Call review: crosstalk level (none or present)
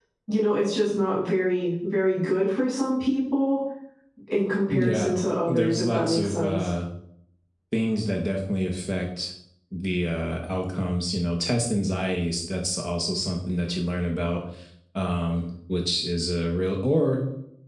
present